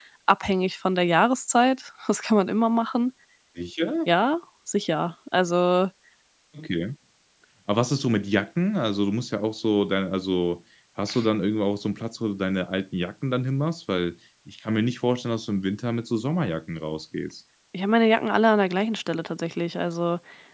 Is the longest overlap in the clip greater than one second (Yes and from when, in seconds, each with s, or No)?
No